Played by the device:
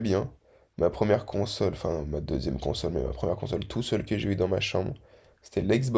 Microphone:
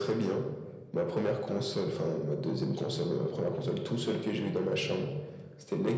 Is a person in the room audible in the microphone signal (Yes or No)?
No